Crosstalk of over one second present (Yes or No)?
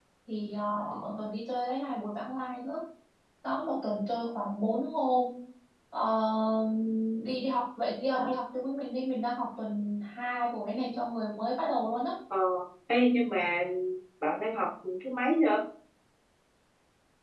No